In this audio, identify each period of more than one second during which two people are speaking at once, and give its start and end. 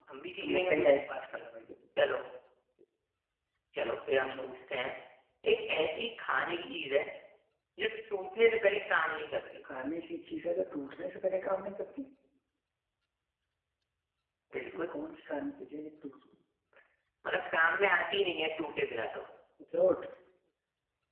none

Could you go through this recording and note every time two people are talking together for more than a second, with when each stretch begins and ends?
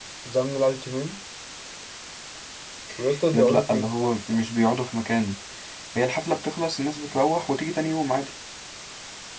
3.3-4.5

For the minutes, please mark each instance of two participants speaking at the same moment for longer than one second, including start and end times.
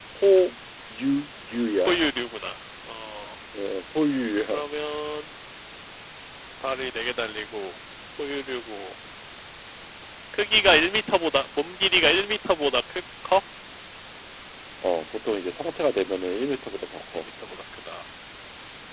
none

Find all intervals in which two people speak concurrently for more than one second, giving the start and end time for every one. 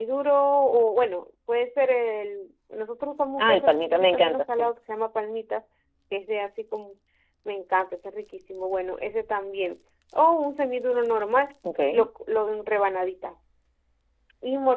3.4-4.7

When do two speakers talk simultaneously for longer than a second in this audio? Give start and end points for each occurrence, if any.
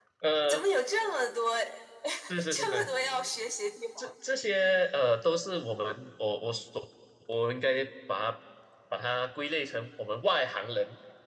none

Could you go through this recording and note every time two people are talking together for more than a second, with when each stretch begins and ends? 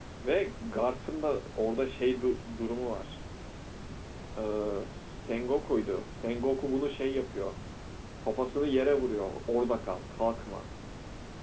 none

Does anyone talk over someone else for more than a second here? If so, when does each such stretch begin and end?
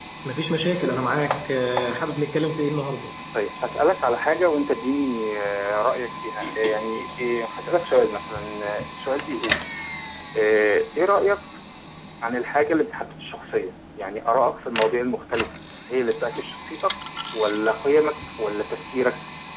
none

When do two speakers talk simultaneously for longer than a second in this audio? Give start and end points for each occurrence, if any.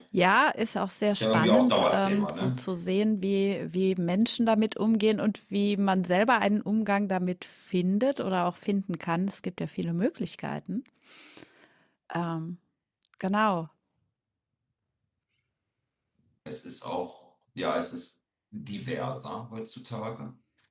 1.1-2.6

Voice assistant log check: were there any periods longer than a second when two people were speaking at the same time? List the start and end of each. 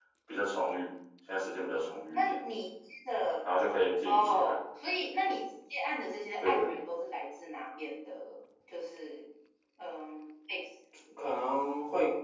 none

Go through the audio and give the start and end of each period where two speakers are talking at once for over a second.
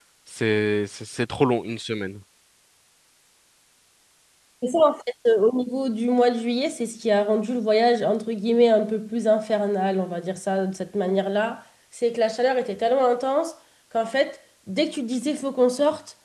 none

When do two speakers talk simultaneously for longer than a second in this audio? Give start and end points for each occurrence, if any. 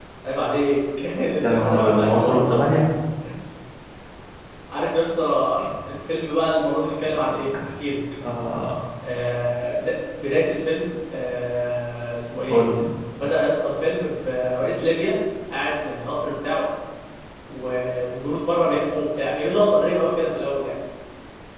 1.4-2.8

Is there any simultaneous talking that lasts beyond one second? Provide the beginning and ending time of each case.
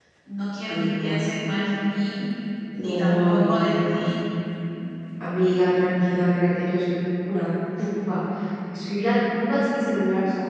2.8-4.1

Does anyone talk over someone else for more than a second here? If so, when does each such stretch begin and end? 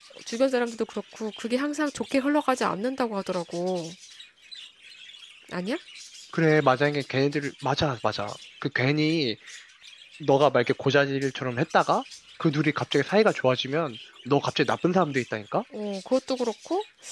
none

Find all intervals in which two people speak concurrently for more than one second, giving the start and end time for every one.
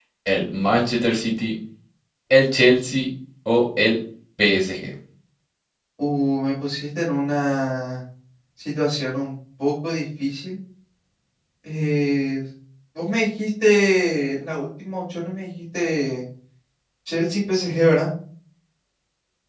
none

